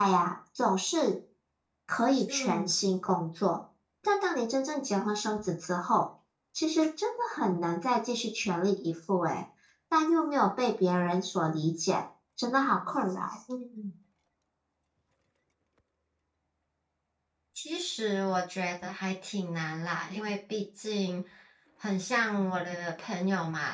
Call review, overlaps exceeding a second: none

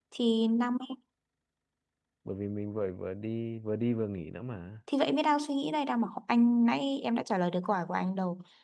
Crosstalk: none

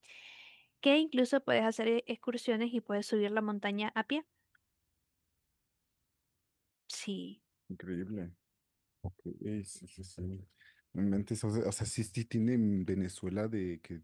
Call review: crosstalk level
none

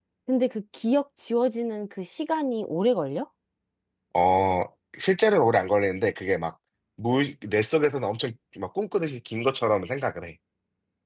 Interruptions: none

